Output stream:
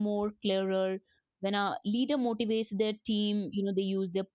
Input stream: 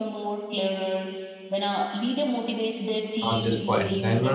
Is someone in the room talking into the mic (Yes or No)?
Yes